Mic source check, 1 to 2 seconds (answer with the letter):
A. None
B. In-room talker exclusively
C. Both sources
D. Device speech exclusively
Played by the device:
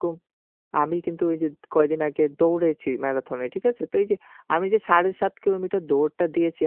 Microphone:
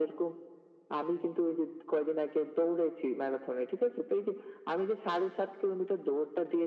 D